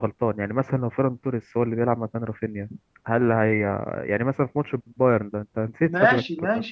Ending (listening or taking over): taking over